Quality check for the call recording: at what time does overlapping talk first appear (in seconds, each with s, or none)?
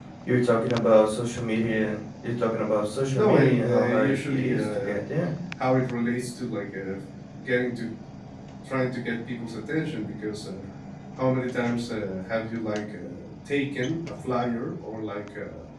3.1 s